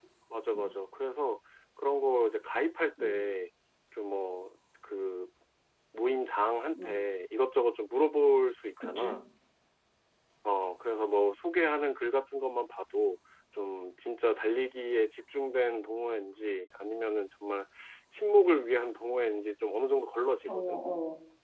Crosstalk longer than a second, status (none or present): none